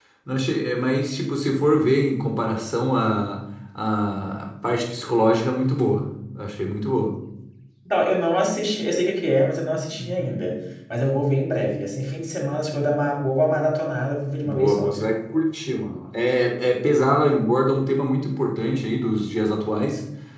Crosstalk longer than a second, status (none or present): none